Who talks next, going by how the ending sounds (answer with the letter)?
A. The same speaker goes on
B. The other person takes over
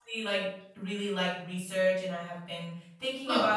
A